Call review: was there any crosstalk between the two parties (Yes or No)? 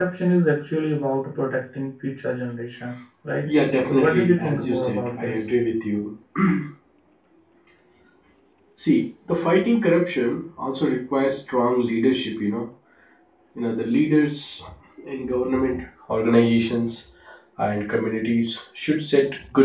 Yes